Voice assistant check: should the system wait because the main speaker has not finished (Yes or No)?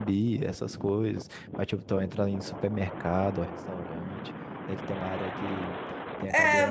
No